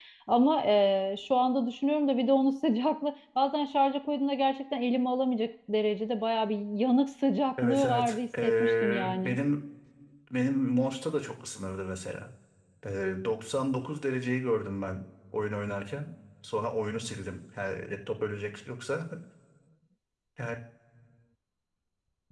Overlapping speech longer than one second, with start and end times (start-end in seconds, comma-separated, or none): 7.6-9.4